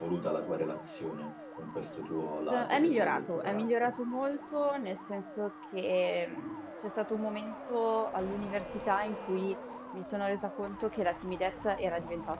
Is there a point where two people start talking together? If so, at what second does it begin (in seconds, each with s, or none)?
2.5 s